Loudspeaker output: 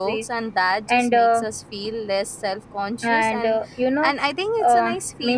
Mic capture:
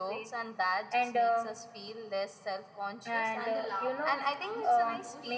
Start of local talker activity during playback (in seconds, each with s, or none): 3.4 s